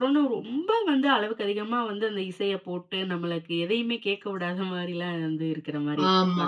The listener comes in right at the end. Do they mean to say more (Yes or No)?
Yes